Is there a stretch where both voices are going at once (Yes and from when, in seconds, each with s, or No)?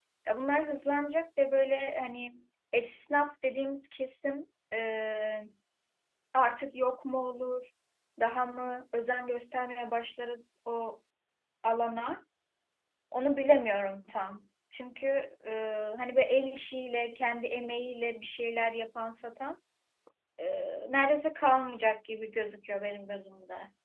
No